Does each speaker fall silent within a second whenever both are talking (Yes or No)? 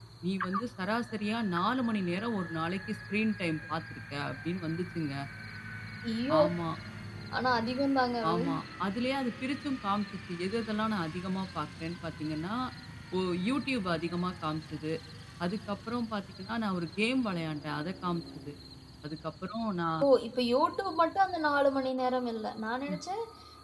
Yes